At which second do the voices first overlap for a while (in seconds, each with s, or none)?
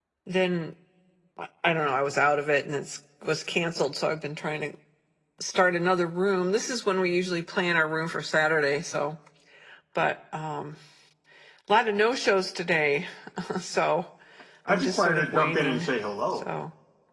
14.7 s